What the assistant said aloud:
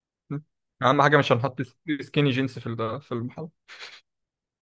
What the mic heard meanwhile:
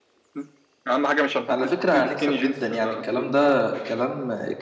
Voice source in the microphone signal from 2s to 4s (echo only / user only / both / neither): both